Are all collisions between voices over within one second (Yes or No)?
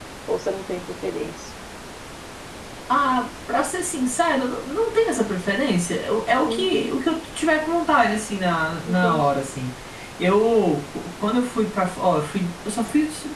Yes